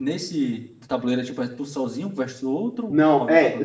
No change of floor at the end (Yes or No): No